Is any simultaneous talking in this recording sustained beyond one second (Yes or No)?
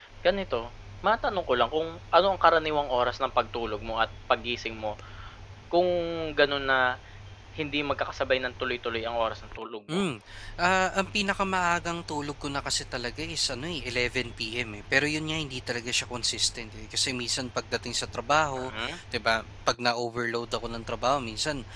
No